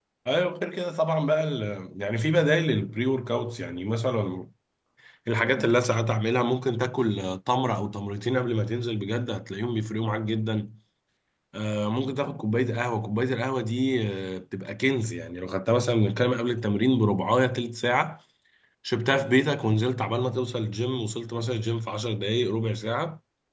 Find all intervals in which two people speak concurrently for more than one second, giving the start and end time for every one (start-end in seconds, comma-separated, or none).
none